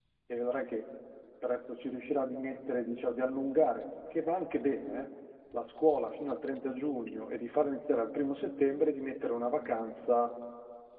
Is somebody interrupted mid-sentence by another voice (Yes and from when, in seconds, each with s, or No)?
No